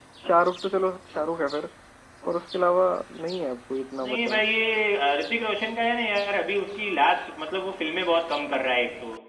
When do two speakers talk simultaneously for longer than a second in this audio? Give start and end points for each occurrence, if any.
none

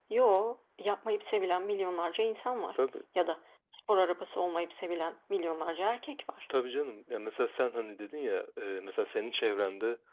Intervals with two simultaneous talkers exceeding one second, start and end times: none

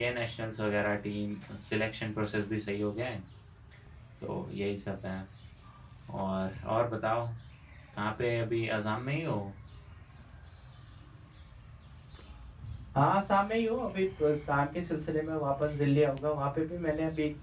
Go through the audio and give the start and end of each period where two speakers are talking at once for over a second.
none

